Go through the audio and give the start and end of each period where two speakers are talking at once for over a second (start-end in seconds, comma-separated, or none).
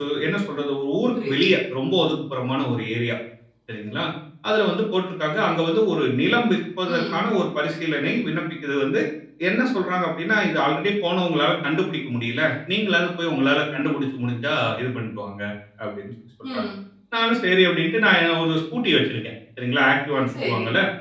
none